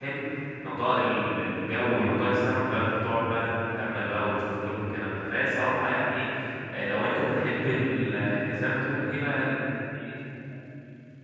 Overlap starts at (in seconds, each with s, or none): none